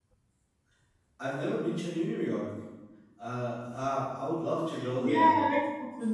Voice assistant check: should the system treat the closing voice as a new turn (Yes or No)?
Yes